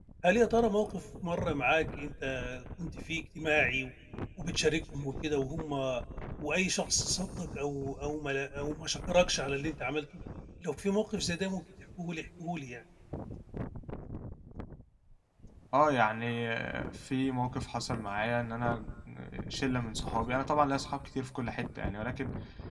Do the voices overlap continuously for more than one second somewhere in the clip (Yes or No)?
No